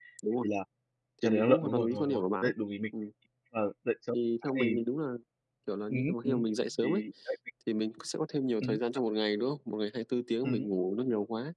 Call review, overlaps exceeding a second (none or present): present